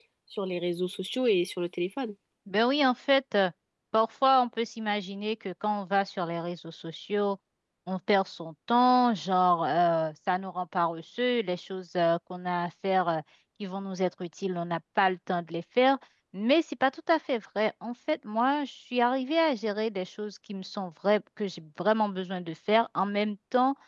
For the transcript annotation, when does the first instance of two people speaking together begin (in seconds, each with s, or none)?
none